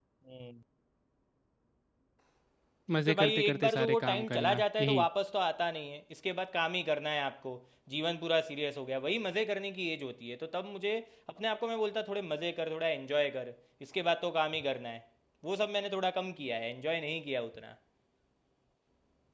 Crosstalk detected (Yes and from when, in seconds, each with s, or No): Yes, from 3.0 s